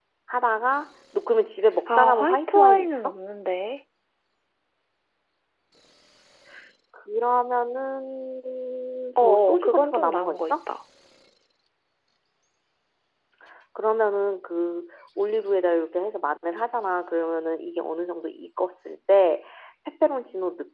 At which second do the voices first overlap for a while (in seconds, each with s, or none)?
1.9 s